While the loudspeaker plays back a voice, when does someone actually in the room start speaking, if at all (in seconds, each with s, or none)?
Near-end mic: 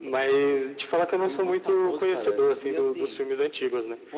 none